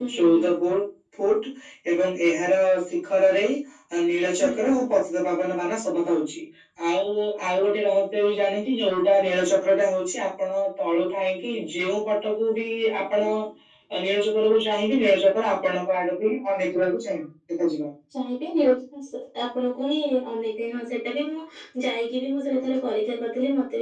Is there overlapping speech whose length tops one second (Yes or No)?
No